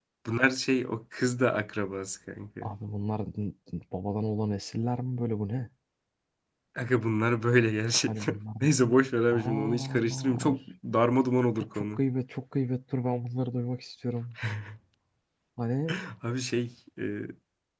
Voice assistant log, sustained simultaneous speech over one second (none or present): present